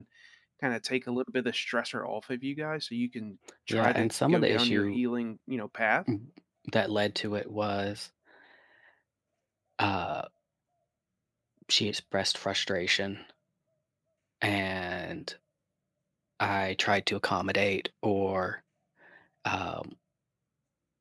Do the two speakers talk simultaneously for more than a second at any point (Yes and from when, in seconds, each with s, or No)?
Yes, from 3.7 s